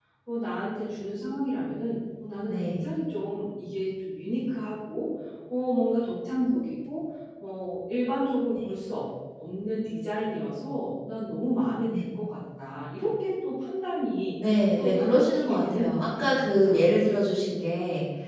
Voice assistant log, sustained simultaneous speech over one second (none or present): present